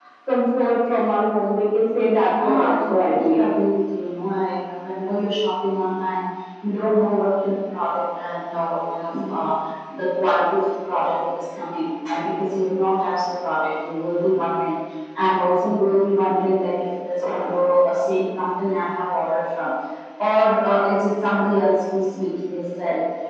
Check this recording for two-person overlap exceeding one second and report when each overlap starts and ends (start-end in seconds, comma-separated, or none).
2.3-3.5